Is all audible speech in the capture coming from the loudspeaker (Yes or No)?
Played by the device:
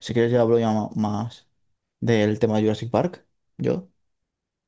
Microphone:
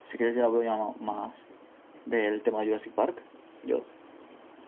Yes